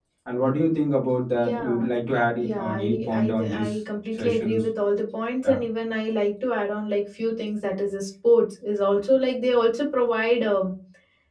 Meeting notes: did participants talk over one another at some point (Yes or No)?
Yes